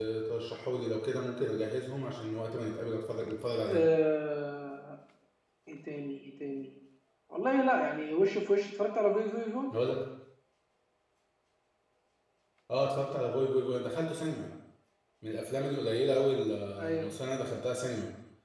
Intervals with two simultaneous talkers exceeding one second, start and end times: none

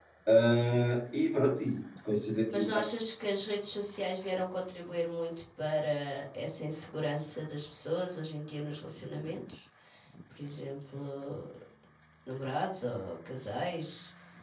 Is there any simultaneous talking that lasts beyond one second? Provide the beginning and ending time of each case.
none

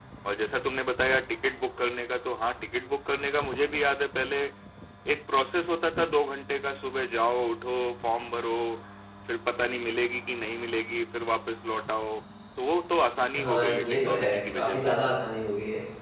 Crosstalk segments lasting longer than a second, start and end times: 13.4-14.9

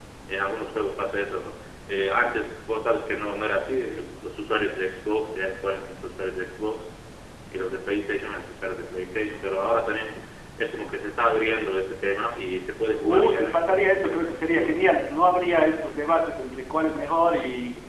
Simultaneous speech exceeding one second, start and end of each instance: 13.0-14.8

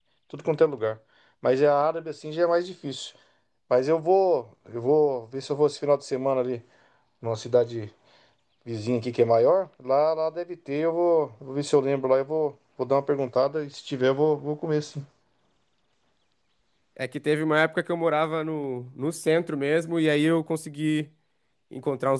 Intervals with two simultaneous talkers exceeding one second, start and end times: none

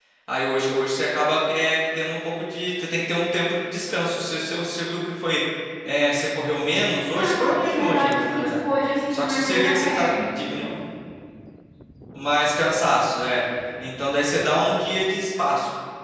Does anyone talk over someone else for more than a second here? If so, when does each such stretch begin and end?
7.1-8.6, 9.1-10.7

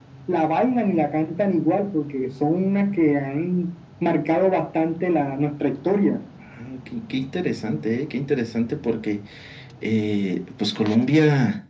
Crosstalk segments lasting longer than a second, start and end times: none

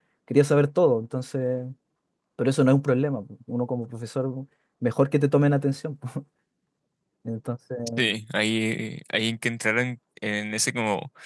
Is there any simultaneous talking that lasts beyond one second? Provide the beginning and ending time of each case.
none

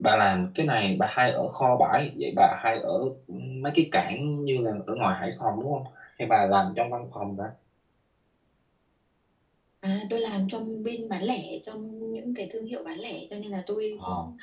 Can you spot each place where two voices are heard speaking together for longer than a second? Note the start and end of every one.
none

